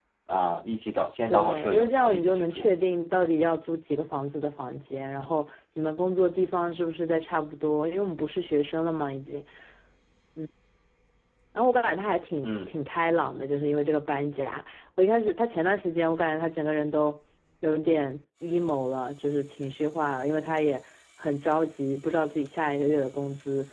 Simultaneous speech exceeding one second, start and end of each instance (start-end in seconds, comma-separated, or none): 1.3-2.7